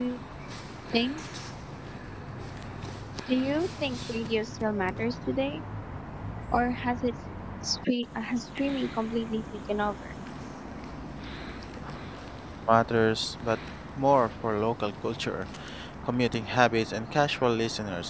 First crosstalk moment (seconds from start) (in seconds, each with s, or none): none